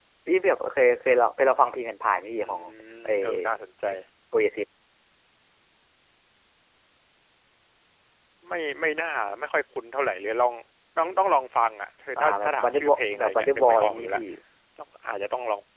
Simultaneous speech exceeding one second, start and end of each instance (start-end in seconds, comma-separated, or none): 12.2-14.2